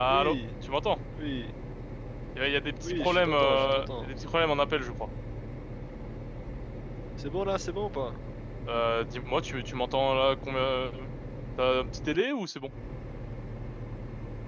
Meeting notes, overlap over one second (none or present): present